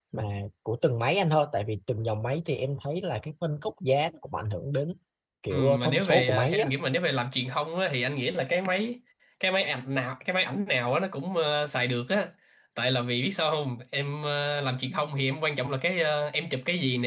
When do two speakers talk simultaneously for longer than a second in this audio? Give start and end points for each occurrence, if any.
5.5-6.7

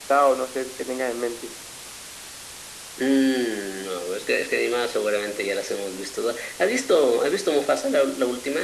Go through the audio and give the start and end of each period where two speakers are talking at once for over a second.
none

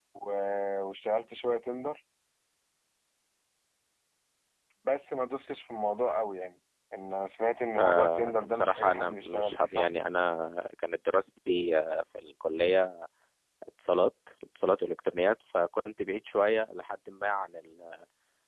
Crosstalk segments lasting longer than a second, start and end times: 7.8-9.9

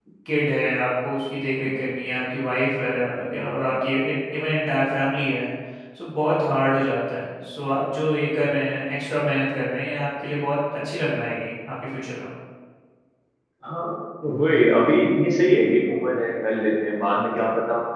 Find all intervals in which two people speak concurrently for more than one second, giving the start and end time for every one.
none

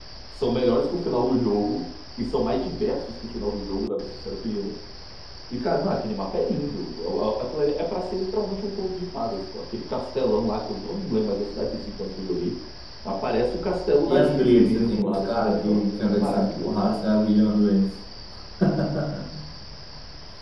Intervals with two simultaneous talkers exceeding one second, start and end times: 14.1-16.8

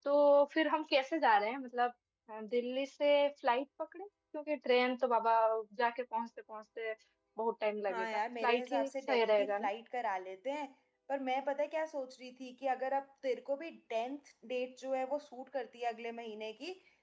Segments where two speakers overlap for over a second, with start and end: 7.9-9.7

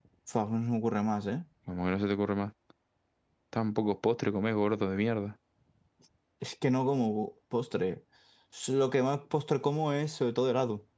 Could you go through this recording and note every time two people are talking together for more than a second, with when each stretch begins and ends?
none

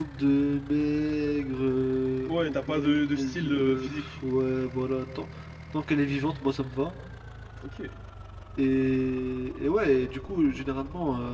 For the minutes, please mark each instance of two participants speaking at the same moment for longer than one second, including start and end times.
2.3-4.1

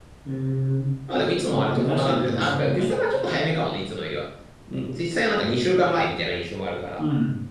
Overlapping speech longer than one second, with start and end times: 1.5-3.2

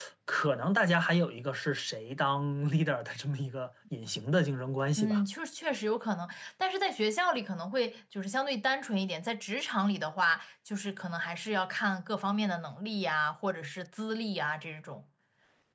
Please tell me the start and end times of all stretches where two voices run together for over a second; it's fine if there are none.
none

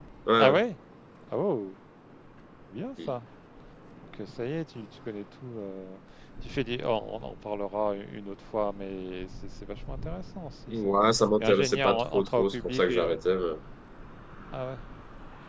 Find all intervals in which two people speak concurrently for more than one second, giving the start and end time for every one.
11.4-13.2

